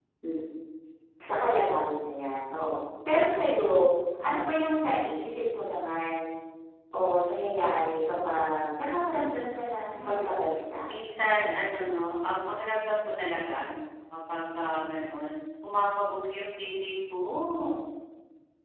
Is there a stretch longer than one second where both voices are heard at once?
No

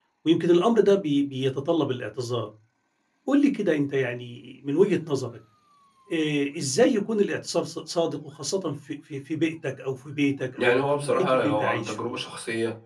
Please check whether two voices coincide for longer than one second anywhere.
Yes, from 10.6 s

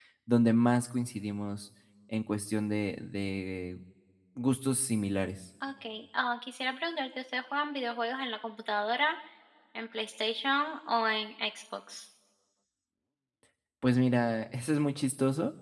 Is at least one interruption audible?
No

